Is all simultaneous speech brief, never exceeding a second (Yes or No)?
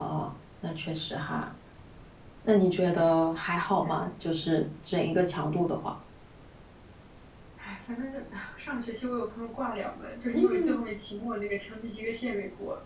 Yes